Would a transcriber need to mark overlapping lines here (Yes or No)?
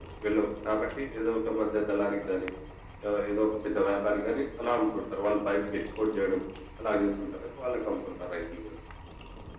No